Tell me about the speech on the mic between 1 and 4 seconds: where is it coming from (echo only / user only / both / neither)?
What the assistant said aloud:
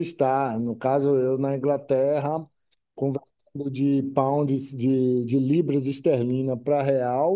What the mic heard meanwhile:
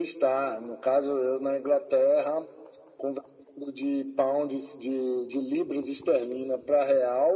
echo only